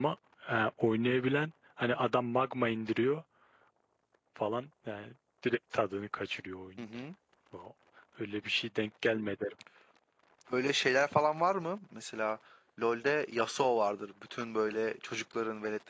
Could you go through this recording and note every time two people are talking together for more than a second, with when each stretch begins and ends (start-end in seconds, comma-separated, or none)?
none